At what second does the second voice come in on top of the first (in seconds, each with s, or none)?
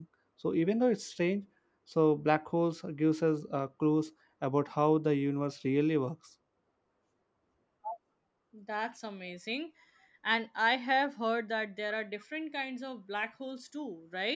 none